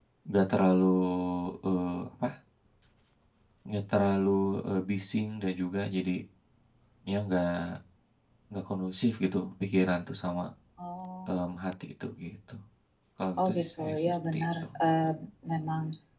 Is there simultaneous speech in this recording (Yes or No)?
Yes